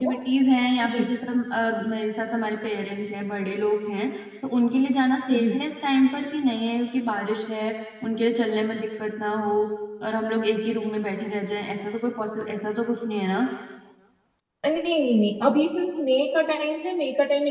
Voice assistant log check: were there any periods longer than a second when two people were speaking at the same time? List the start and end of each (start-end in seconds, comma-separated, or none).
none